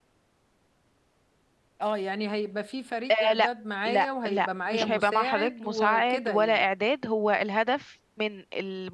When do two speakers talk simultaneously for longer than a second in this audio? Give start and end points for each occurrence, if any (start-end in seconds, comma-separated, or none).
3.9-6.6